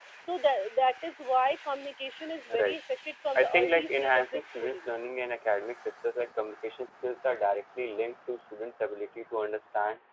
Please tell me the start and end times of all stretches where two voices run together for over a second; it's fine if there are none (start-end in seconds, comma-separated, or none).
3.4-4.9